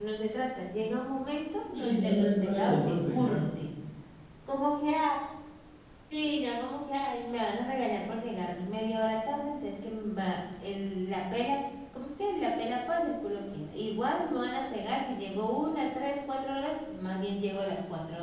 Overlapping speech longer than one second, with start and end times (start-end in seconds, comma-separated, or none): 1.8-3.4